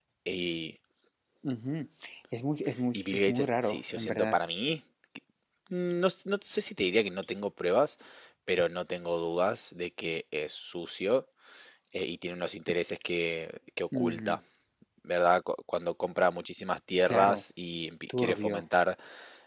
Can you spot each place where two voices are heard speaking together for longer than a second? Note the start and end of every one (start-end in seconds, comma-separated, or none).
2.9-4.4